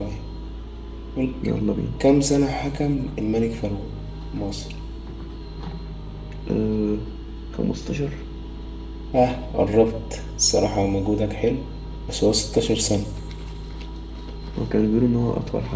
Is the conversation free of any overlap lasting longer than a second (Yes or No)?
Yes